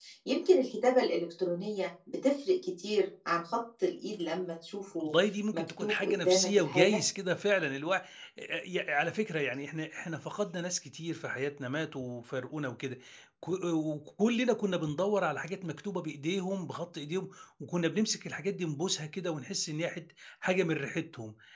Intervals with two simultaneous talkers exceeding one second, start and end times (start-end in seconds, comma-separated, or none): 5.5-7.0